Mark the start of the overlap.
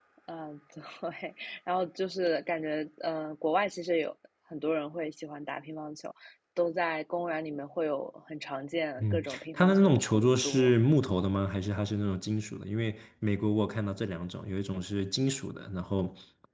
9.0 s

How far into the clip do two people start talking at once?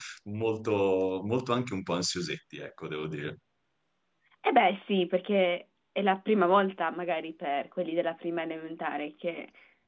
none

